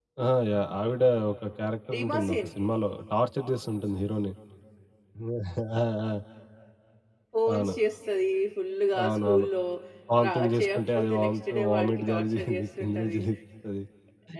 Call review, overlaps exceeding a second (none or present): present